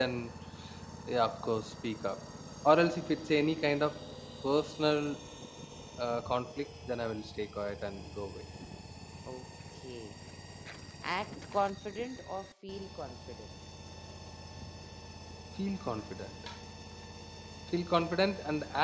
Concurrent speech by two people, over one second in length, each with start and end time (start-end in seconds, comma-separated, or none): none